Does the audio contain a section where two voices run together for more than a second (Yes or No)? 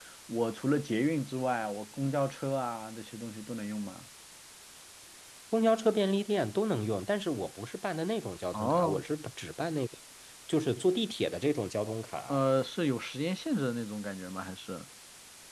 No